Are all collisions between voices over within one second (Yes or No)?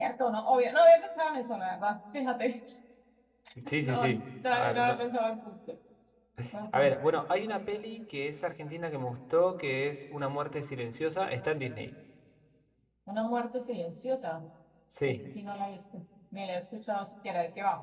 No